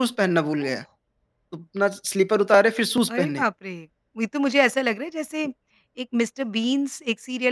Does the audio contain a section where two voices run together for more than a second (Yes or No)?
No